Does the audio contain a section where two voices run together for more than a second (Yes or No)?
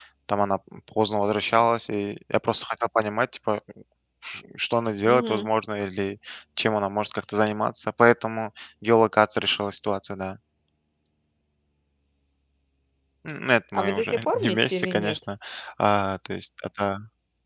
Yes